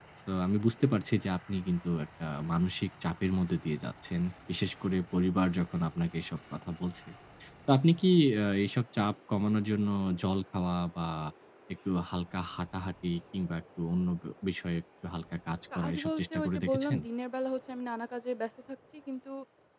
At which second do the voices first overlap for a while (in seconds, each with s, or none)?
15.7 s